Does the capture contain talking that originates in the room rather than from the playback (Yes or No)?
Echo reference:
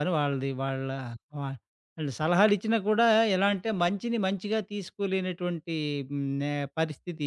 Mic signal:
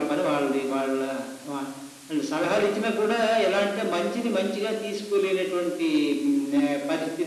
No